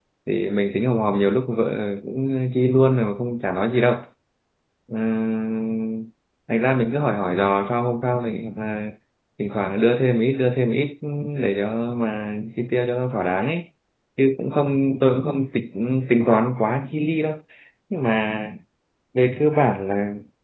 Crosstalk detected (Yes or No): No